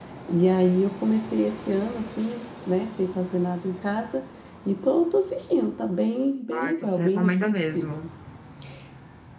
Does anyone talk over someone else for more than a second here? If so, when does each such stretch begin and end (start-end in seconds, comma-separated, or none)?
6.5-8.0